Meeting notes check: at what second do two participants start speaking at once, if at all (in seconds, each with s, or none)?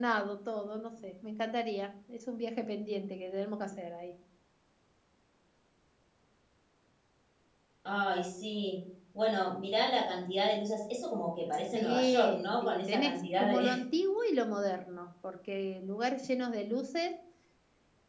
11.7 s